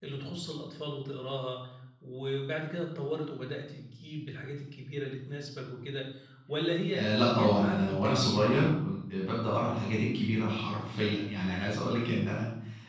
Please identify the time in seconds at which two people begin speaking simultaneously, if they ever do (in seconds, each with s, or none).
6.9 s